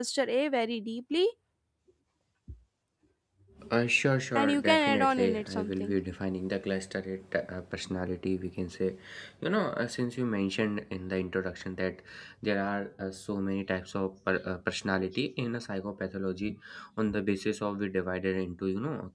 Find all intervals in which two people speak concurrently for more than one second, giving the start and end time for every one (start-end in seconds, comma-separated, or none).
4.4-6.0